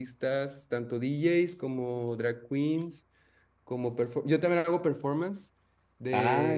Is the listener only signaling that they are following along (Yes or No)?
No